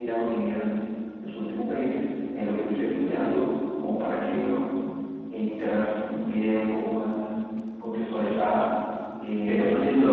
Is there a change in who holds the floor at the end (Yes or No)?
Yes